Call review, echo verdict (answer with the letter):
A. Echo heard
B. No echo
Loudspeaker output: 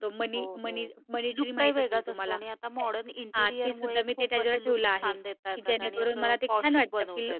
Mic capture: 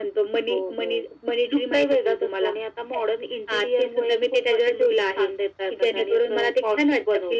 A